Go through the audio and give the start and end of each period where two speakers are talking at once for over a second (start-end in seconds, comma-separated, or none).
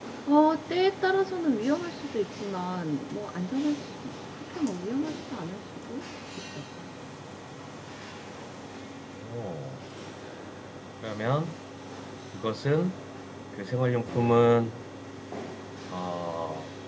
none